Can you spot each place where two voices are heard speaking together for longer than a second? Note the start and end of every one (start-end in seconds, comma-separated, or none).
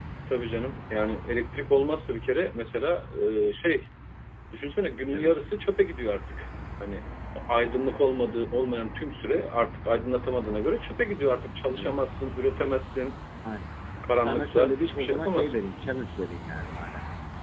14.2-15.6